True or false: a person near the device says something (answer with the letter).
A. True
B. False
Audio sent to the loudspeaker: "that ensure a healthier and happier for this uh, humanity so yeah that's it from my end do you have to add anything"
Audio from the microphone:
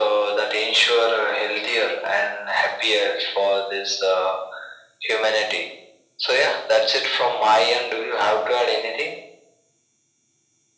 B